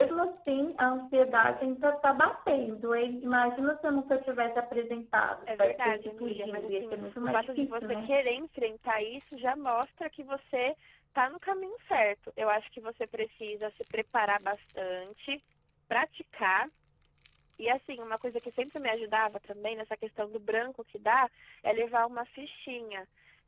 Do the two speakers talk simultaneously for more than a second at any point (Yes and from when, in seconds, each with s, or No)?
Yes, from 5.5 s